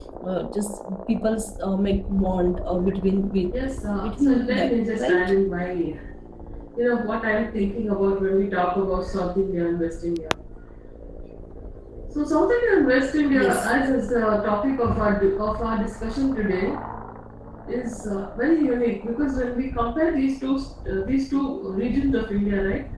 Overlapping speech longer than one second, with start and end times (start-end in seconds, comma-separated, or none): 4.0-5.3